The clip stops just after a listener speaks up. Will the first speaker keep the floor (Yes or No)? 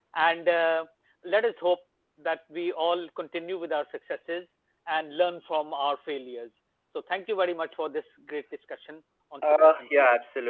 No